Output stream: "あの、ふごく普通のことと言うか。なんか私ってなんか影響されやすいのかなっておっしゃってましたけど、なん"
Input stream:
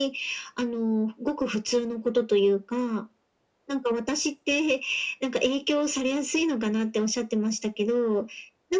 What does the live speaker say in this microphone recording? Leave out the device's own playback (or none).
none